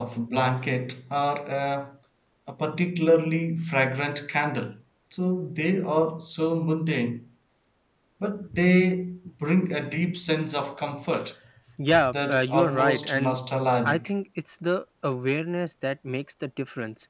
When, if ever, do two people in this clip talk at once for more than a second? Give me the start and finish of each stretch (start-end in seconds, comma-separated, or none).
12.1-13.4